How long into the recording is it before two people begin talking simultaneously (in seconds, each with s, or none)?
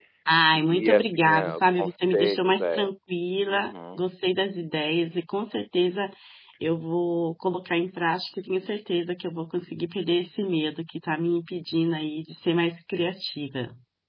0.5 s